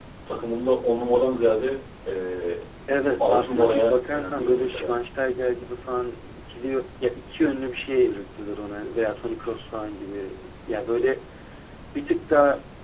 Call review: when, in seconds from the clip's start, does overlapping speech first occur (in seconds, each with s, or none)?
3.2 s